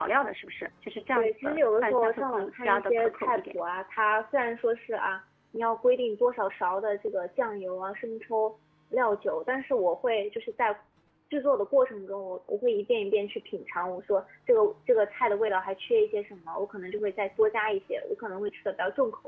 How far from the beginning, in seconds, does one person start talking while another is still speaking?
1 s

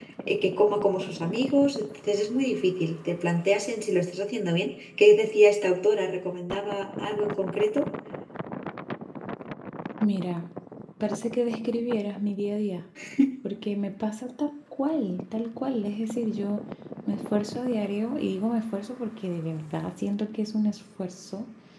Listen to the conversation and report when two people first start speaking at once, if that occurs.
none

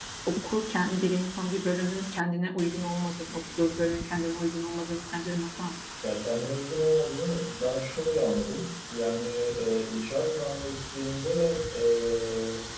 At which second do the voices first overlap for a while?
none

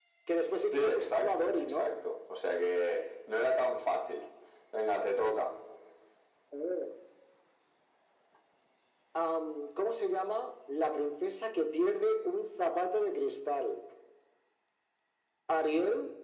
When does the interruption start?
1 s

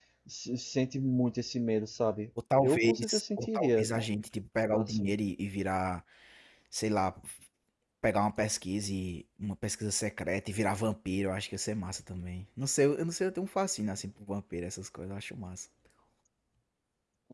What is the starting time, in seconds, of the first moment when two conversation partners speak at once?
3 s

